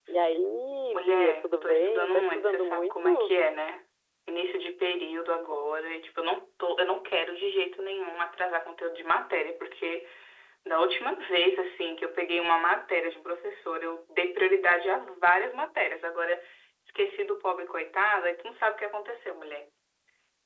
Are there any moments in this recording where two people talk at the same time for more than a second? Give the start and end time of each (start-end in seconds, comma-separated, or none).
0.9-3.3